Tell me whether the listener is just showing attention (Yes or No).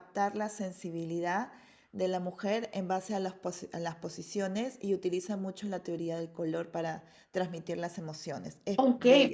No